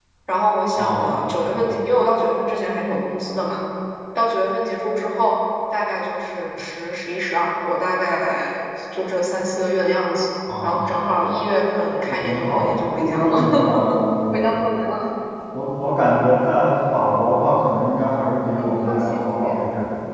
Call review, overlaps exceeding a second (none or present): present